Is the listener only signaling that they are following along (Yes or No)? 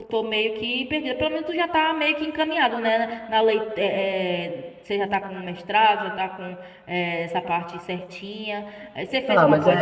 No